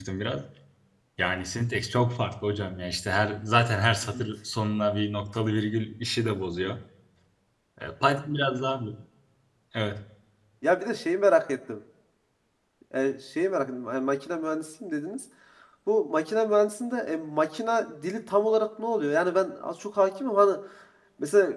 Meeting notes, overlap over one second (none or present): none